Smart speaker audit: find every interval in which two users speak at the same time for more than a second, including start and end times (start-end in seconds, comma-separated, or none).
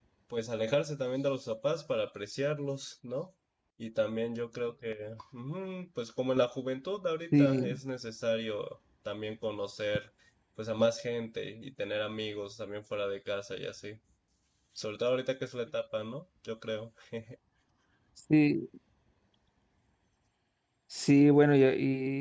none